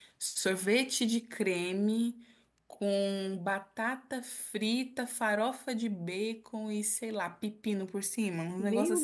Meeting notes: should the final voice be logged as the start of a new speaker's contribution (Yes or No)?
Yes